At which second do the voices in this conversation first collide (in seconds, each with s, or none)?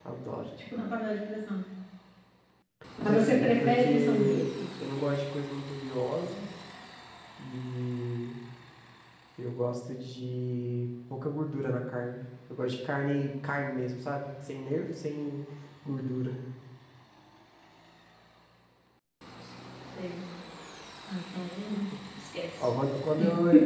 3.1 s